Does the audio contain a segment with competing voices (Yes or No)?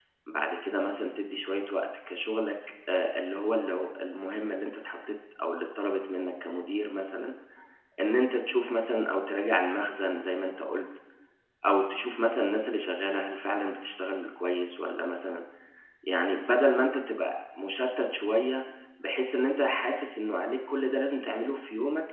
No